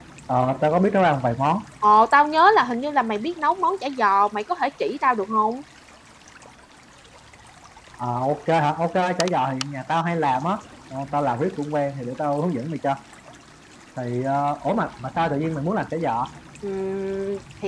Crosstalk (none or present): none